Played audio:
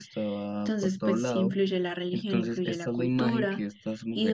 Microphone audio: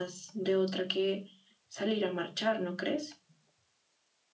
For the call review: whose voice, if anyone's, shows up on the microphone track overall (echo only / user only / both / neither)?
user only